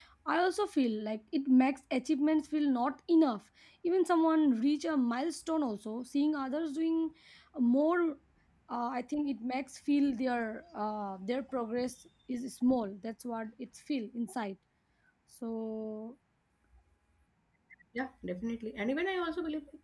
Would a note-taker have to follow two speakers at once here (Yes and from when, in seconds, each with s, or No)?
No